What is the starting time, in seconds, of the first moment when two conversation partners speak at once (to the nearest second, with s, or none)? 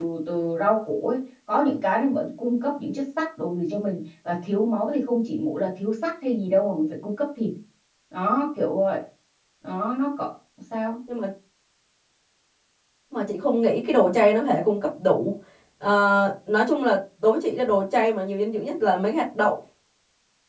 none